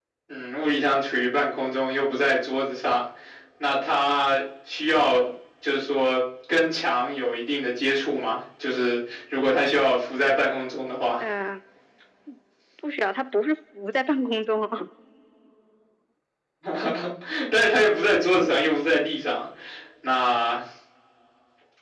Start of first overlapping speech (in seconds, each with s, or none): none